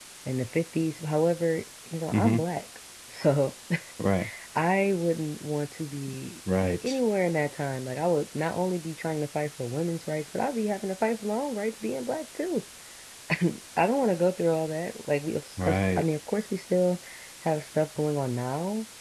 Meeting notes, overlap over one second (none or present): none